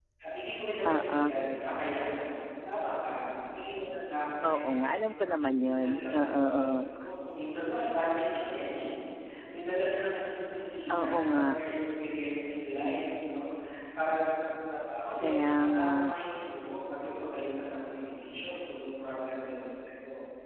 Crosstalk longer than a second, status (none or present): present